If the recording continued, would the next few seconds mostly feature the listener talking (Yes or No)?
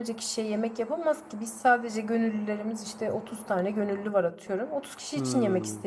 Yes